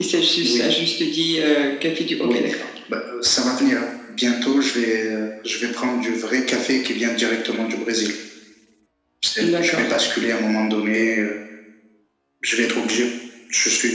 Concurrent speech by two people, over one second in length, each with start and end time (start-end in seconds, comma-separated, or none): none